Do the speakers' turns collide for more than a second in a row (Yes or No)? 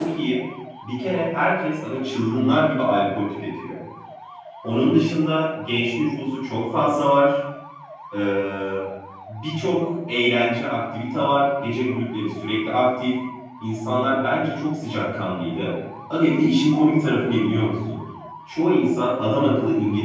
No